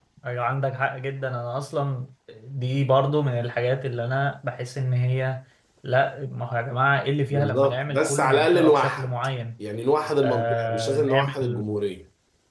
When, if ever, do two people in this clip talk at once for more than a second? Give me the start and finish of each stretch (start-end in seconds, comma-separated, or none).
7.3-9.1, 10.2-11.6